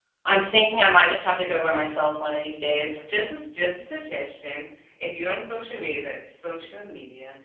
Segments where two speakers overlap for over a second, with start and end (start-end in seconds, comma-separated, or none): none